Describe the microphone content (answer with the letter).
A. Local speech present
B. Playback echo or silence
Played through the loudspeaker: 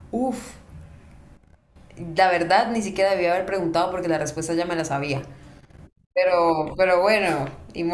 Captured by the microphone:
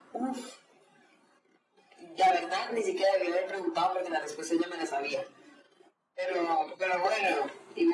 B